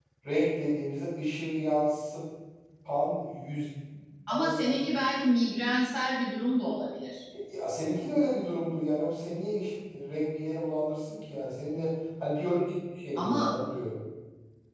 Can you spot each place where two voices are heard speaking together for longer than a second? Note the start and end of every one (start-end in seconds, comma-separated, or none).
none